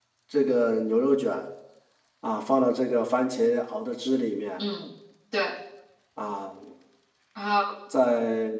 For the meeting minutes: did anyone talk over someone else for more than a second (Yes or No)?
No